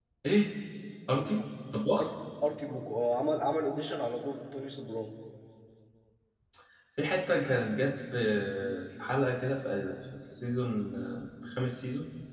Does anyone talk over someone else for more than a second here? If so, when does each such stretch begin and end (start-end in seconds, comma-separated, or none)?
none